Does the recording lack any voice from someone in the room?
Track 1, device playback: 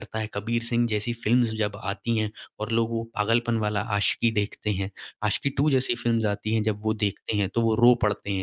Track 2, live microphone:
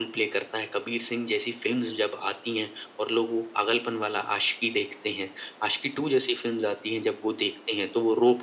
Yes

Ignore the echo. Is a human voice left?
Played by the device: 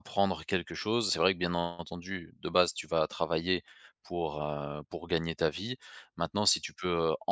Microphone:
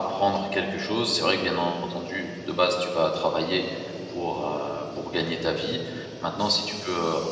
No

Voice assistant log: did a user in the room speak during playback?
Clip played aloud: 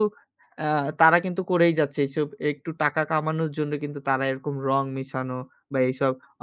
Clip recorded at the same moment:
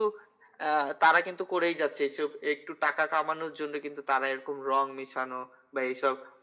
No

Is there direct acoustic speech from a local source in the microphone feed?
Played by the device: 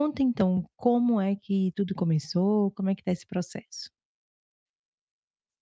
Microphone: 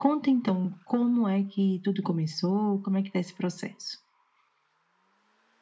No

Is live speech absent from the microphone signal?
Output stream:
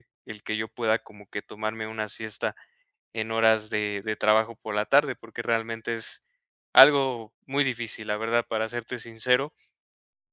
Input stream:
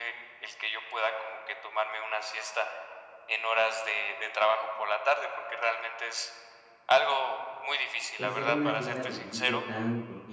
No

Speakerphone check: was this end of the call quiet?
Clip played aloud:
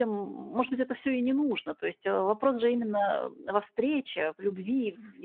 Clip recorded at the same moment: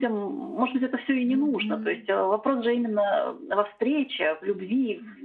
No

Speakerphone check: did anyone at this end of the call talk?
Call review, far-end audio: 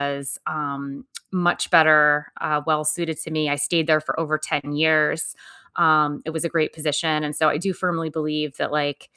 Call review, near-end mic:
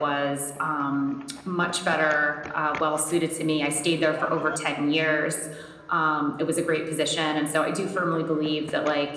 No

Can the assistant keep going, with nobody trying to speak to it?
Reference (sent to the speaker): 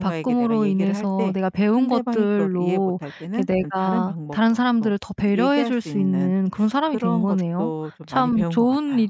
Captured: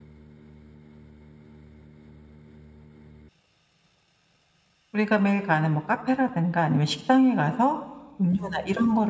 No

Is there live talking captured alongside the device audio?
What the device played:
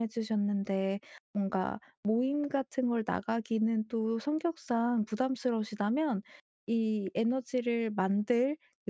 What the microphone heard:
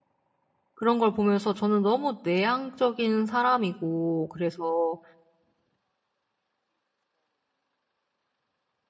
Yes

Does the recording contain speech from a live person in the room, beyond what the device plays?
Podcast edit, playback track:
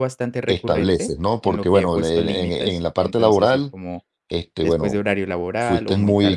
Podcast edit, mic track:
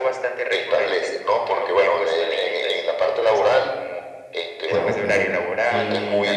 Yes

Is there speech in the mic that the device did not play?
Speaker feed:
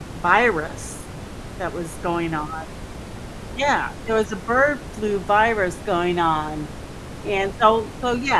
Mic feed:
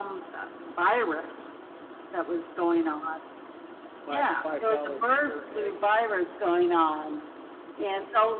Yes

